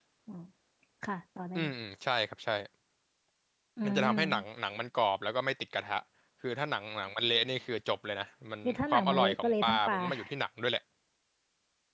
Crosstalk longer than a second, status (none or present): present